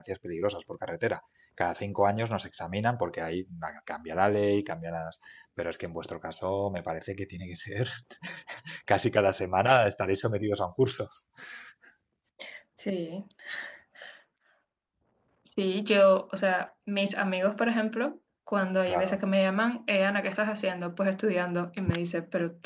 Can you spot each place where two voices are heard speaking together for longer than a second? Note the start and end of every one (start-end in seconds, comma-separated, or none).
none